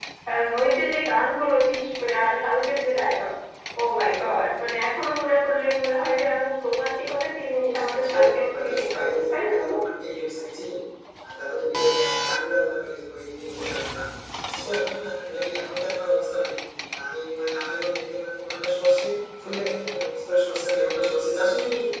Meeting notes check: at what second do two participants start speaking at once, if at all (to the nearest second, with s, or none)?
8 s